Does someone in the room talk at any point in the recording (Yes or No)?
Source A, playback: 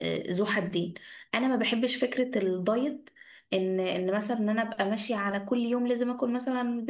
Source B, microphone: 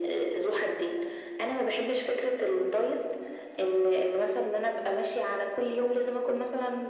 No